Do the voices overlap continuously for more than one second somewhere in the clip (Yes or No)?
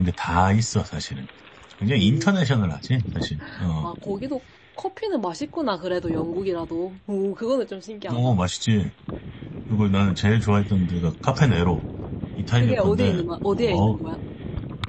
Yes